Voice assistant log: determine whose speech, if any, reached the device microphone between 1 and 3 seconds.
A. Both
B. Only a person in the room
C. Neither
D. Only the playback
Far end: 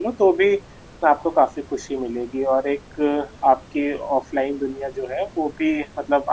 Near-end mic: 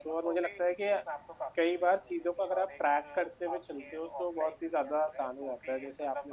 A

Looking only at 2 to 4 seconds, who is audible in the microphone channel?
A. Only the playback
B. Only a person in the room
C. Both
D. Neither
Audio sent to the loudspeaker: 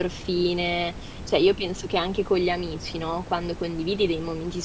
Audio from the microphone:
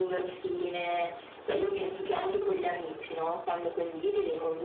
A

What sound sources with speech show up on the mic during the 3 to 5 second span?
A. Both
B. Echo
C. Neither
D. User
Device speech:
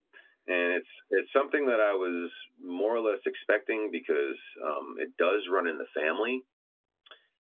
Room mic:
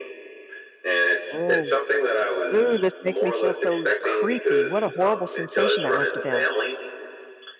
A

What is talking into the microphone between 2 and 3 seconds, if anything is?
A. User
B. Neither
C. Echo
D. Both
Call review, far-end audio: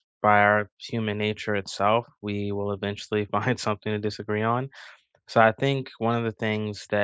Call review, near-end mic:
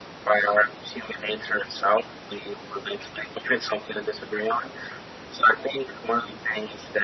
C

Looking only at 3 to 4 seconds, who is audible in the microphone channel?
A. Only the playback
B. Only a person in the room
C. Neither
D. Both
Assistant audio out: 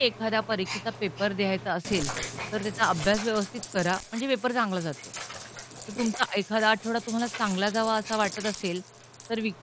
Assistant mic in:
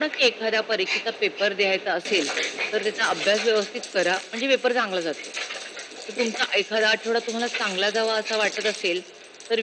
A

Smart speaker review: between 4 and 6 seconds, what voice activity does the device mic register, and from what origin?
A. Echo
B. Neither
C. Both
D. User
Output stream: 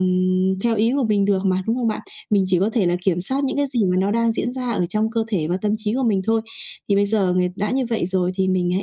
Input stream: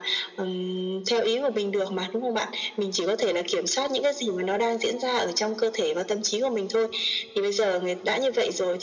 A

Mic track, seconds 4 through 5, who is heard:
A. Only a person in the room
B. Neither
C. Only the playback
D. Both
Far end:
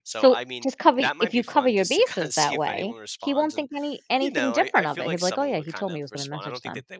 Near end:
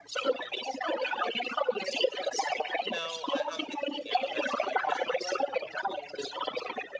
D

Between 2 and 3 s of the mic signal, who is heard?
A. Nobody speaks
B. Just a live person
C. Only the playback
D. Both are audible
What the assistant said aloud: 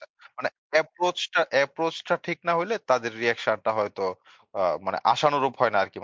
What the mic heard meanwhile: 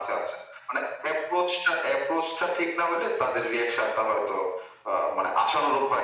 C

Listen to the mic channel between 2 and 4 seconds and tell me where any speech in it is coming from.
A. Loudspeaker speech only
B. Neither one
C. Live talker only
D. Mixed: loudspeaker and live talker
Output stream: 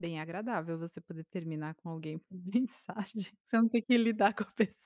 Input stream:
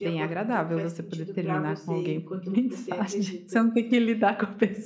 D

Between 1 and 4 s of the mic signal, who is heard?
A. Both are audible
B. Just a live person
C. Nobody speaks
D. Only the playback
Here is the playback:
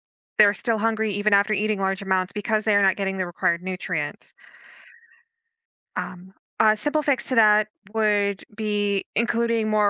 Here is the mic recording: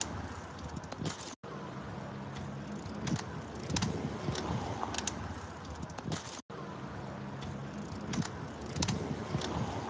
C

